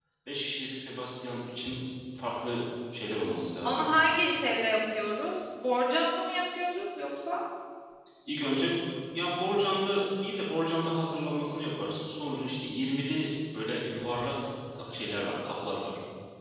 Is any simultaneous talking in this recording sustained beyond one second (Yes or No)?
No